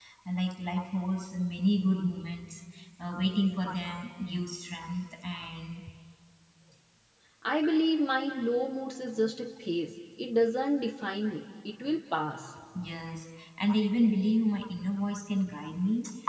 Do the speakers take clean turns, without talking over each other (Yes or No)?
Yes